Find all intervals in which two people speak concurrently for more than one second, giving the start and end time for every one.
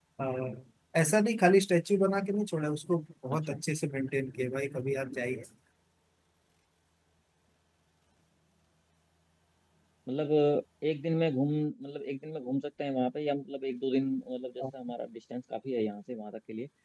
none

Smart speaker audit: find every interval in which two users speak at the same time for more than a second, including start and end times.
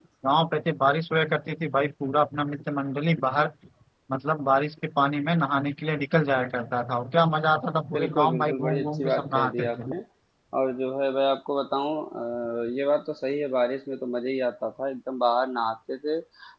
7.9-9.9

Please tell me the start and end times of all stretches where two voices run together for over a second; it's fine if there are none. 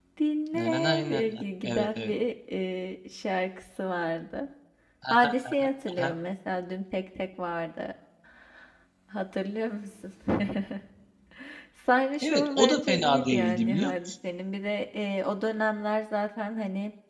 0.5-2.1, 12.2-13.9

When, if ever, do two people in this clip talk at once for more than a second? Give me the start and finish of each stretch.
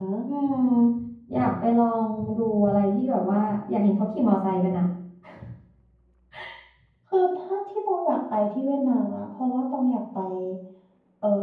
none

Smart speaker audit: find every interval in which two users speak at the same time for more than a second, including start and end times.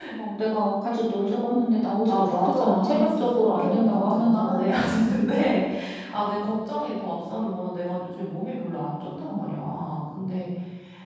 2.0-5.1

